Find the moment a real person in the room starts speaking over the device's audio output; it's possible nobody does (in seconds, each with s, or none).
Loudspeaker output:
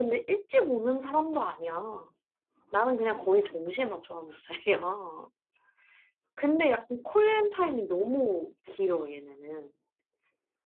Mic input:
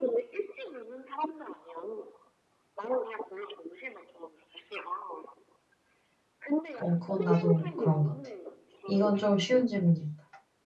6.7 s